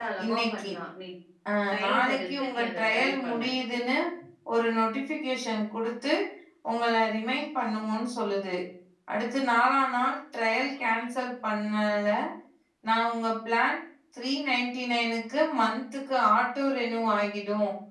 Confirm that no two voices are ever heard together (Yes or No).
No